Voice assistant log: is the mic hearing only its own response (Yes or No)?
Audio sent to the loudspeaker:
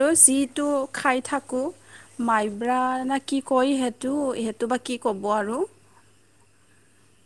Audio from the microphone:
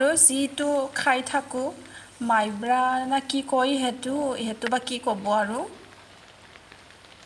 Yes